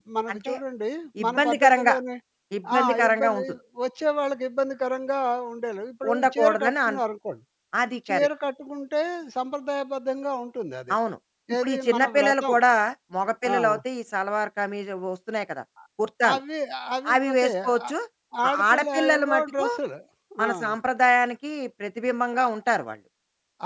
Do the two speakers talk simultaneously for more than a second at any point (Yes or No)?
Yes